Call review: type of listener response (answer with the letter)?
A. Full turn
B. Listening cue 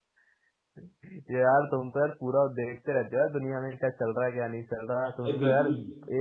B